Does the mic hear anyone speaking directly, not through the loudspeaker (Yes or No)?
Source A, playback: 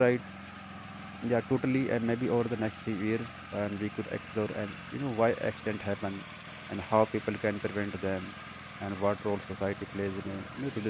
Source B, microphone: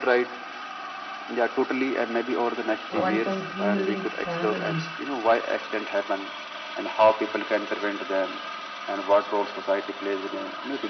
Yes